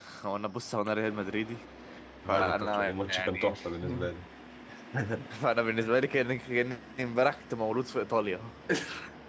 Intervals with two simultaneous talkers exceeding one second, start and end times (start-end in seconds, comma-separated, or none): 2.3-3.5